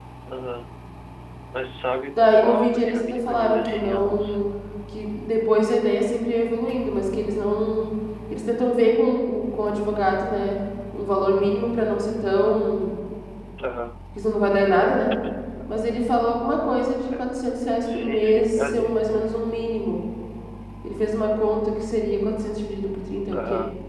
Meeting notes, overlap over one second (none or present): present